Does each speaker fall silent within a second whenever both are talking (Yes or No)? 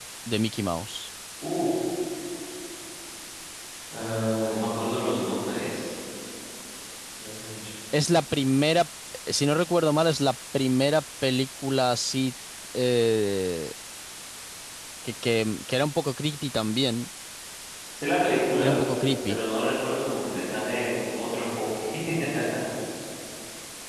Yes